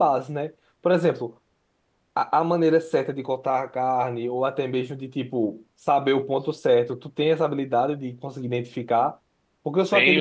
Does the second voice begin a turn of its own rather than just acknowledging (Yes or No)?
No